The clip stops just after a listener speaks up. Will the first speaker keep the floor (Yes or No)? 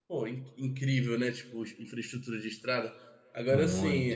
Yes